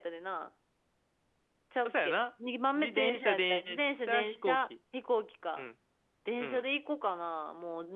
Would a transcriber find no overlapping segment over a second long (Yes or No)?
No